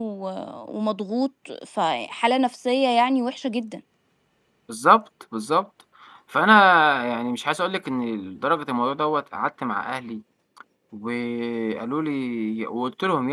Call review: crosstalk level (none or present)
none